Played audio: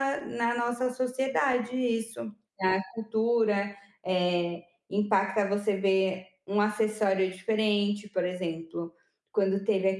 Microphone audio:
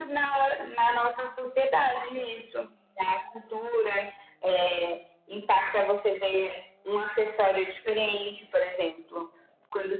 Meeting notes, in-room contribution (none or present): none